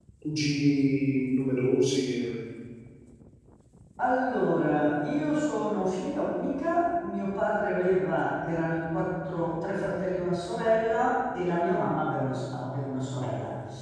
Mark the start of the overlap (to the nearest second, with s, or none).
none